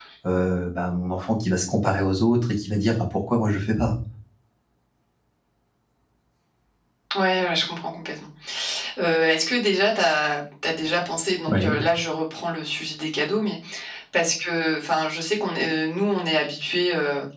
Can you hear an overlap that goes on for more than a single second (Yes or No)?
No